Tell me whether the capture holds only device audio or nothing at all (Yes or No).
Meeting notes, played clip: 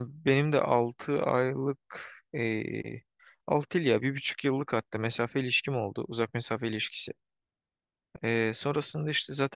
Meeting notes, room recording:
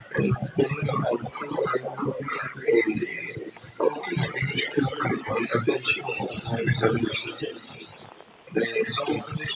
Yes